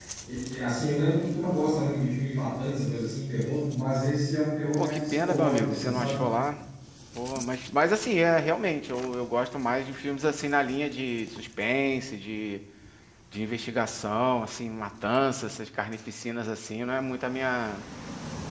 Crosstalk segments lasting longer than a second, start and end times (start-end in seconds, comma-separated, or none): 4.8-6.2